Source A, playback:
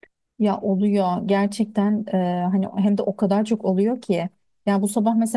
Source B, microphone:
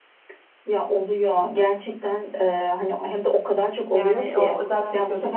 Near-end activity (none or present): present